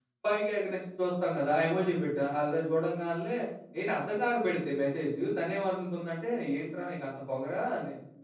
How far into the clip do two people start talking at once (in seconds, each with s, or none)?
none